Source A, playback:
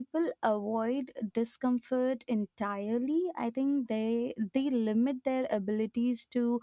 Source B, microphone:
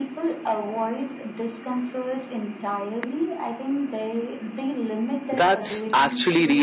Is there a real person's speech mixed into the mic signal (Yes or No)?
Yes